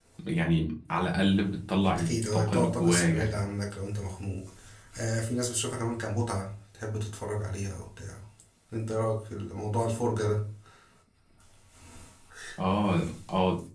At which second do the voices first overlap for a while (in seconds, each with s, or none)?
2.0 s